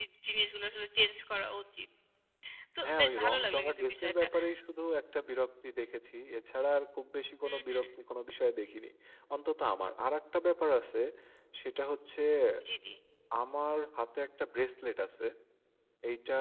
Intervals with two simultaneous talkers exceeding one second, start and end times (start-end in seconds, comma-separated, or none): 2.8-4.2